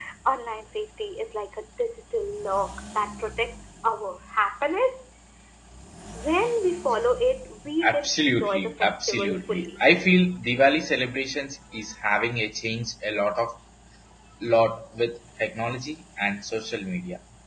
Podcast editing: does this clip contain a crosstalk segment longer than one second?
Yes, from 7.8 s

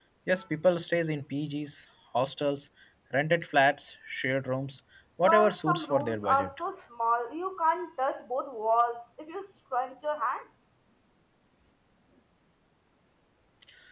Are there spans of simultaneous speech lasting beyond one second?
Yes, from 5.2 s

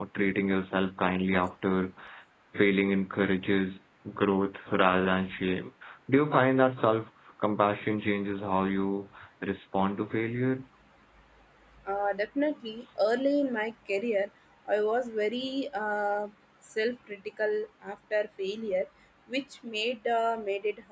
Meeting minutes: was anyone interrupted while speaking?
No

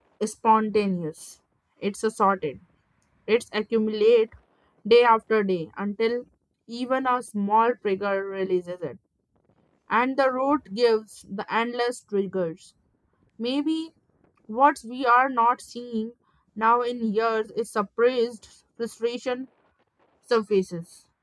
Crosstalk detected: No

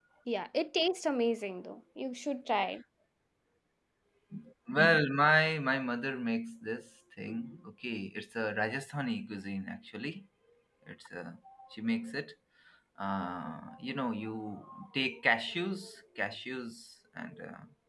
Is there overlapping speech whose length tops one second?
No

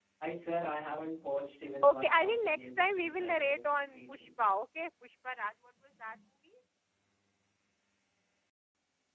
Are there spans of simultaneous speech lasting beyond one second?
Yes, from 1.8 s

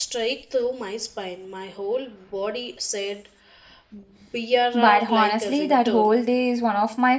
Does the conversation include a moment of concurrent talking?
Yes, from 4.7 s

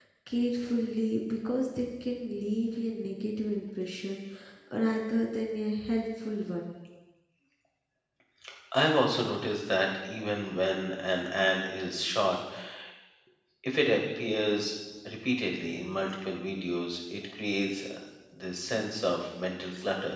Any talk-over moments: No

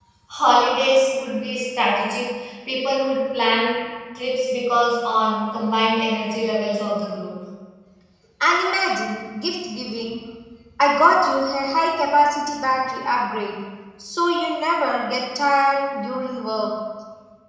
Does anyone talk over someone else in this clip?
No

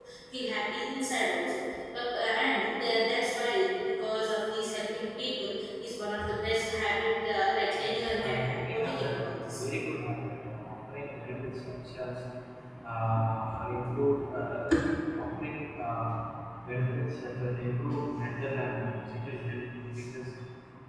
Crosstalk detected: Yes, from 7.8 s

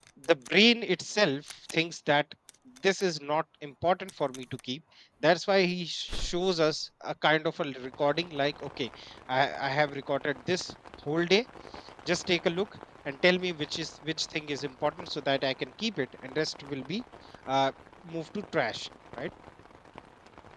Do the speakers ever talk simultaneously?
No

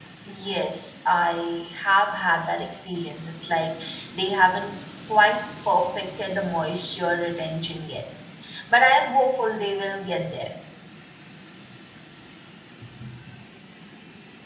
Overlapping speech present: No

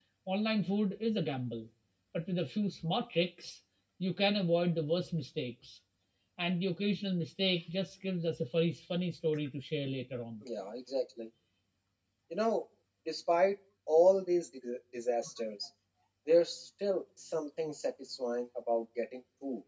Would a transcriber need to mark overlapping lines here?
No

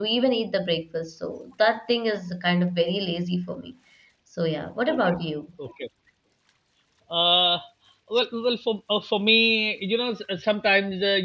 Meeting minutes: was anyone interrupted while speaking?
No

